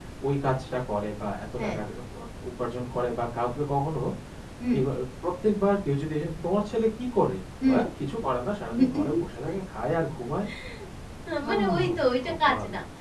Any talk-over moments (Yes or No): Yes